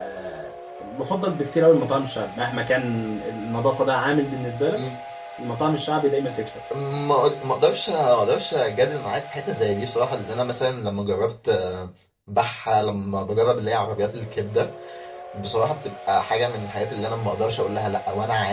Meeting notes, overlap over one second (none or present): none